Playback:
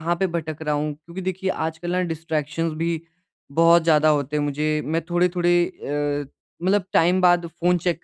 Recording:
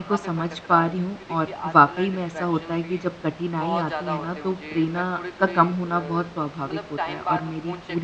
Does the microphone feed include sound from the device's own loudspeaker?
Yes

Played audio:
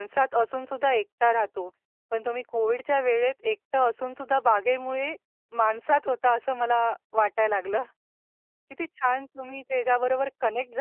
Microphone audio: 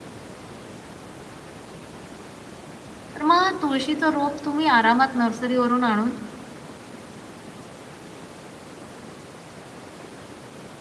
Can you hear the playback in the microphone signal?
No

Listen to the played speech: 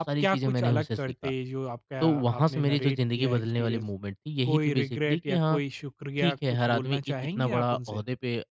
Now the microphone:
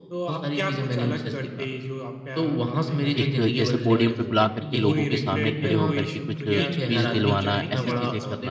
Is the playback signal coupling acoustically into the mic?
Yes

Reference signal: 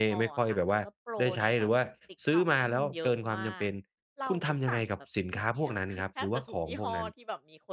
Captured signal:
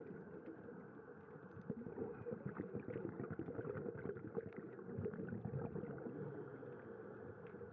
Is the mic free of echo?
Yes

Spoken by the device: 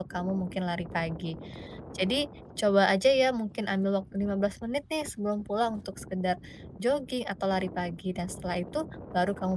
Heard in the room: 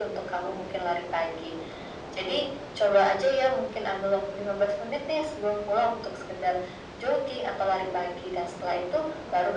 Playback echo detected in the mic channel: Yes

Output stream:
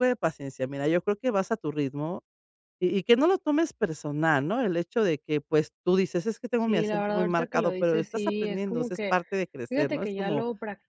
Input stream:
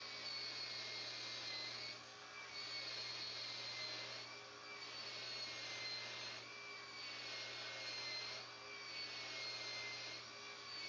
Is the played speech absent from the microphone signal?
Yes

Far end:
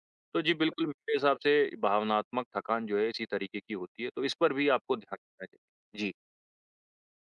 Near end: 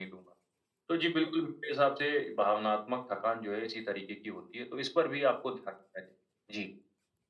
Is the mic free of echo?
No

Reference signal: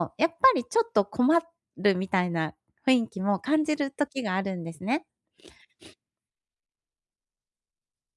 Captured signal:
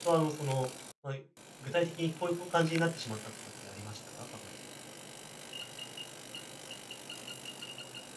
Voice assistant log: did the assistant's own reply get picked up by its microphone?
No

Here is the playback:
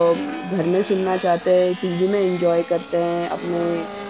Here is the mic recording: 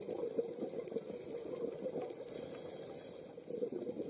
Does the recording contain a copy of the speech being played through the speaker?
No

